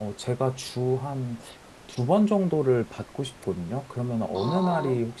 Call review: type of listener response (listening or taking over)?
listening